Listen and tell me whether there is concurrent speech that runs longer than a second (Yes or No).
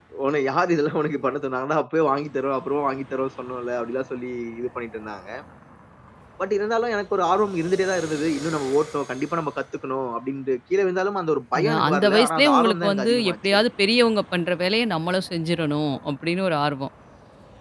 Yes